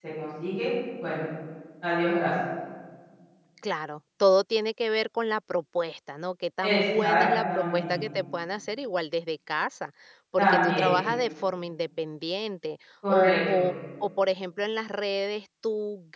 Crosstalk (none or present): present